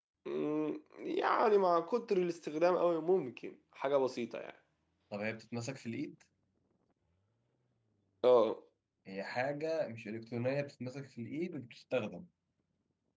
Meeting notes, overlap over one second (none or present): none